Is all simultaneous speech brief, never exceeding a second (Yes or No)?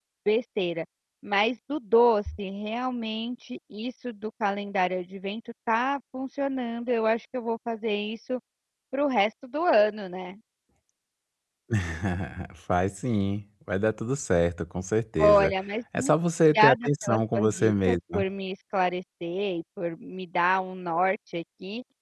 No